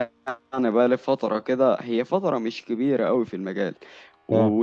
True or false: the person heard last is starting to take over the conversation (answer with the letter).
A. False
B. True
A